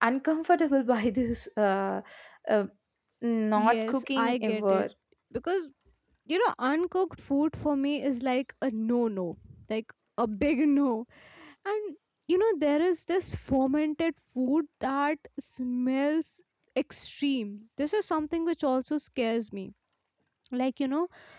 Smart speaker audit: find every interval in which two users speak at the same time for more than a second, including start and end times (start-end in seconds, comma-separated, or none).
3.5-4.9